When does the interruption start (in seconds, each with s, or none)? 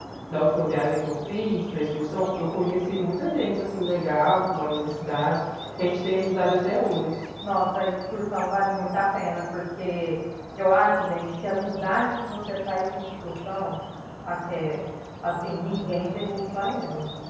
none